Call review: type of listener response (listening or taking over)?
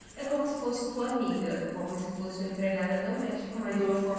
taking over